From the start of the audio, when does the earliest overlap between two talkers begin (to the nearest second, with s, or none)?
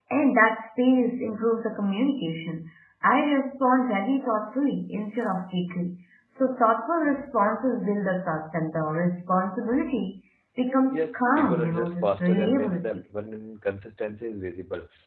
11 s